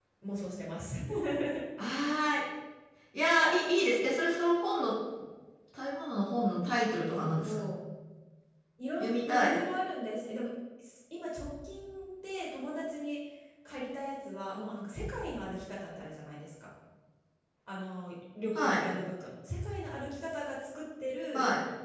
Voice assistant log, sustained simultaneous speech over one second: none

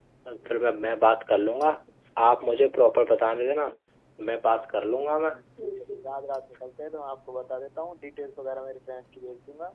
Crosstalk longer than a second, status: none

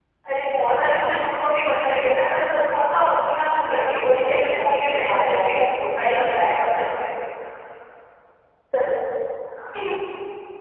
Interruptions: present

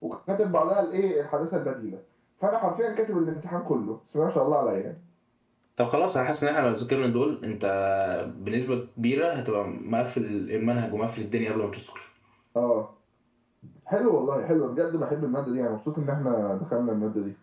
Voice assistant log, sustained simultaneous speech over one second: none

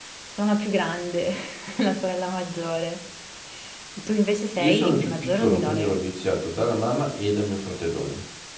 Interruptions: present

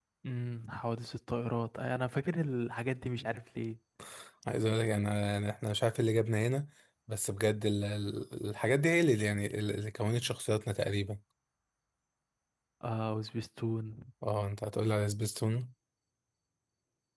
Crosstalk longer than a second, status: none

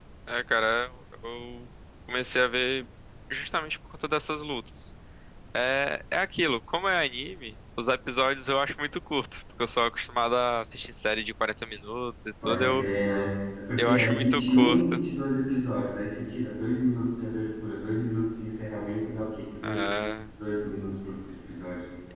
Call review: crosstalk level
present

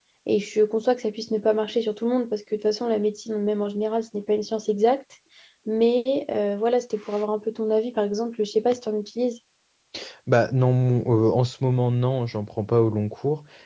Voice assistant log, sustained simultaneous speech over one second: none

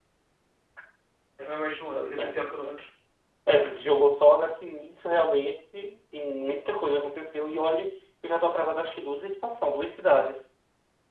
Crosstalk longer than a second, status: none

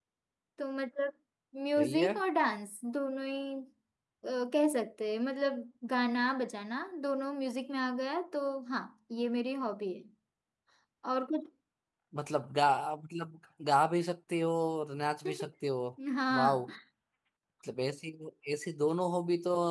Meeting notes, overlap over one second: none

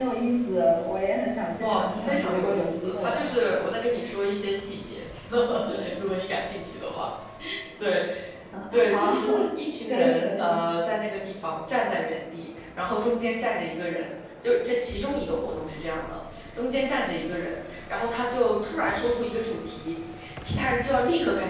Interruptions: present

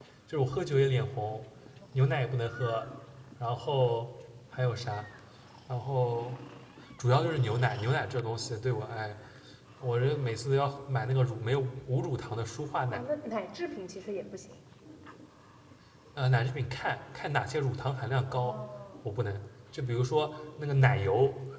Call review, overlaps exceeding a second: none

